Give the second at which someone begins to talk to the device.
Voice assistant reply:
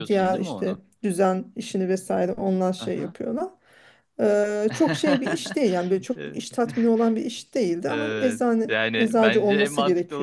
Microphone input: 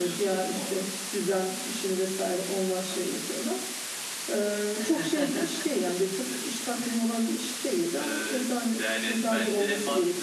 none

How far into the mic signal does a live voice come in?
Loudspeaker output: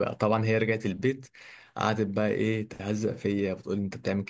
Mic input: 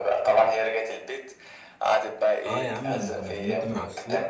2.4 s

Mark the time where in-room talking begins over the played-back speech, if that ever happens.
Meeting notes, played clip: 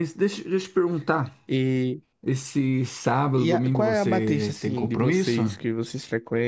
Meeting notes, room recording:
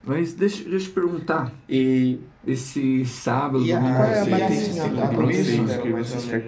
3.8 s

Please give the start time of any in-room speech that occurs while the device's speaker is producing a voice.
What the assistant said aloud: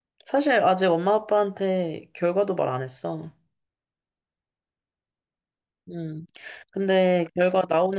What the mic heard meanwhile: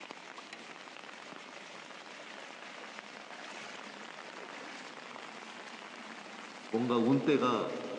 6.7 s

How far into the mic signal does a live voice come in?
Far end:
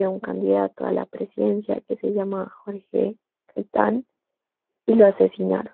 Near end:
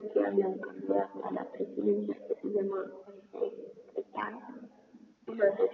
none

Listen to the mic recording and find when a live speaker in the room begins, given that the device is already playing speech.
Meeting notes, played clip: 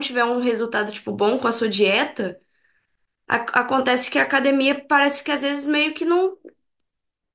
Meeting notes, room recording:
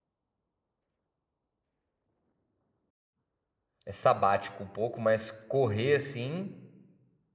3.8 s

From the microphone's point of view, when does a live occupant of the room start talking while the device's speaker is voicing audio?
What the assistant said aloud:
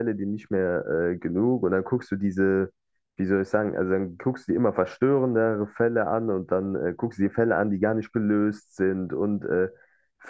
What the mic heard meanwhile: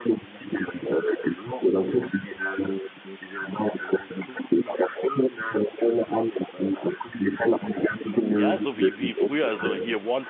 8.4 s

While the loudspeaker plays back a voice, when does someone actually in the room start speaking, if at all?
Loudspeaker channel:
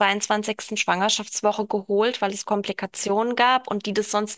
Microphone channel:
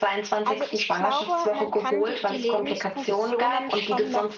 0.4 s

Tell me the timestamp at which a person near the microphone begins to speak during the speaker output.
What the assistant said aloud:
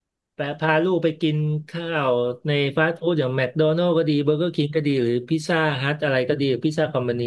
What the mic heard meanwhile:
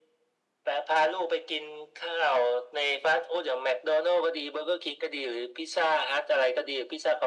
none

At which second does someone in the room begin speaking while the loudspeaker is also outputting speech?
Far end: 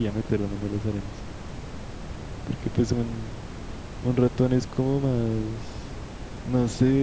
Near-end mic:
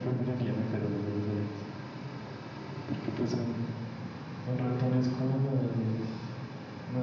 none

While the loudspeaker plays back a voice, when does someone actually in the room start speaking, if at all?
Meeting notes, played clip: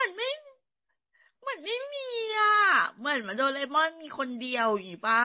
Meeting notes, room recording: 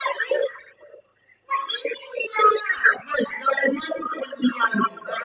none

